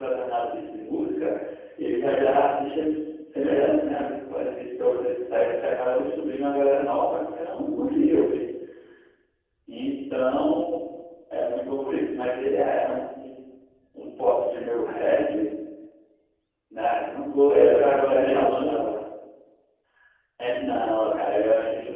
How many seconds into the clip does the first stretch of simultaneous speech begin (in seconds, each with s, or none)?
17.5 s